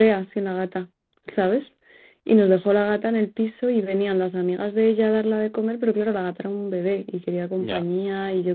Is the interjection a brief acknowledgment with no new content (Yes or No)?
Yes